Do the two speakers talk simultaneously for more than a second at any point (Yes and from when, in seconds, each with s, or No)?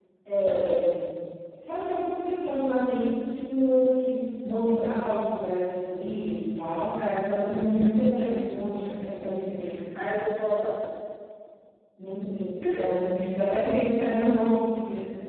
Yes, from 7.0 s